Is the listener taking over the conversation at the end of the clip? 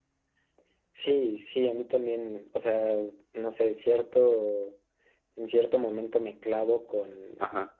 No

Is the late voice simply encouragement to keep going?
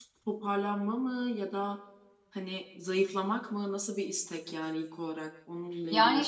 No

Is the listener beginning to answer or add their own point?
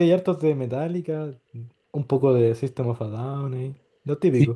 Yes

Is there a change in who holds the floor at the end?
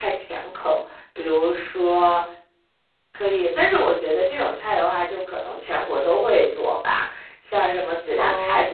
No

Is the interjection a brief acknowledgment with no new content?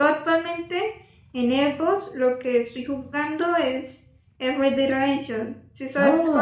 No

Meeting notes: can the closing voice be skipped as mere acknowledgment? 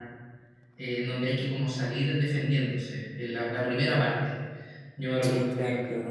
No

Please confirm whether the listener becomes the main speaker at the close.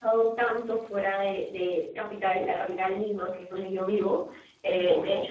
No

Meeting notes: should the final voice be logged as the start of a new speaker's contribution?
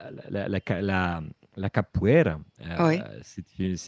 No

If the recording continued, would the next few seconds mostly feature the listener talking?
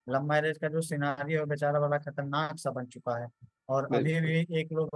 No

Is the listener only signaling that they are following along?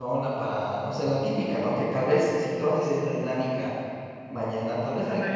Yes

